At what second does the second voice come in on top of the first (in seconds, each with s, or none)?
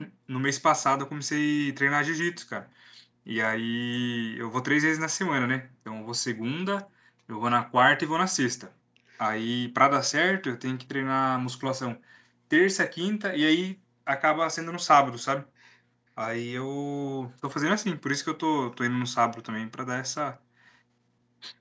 none